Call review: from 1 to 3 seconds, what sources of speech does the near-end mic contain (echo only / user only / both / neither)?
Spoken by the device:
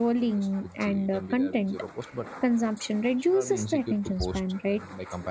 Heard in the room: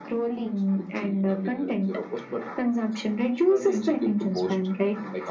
echo only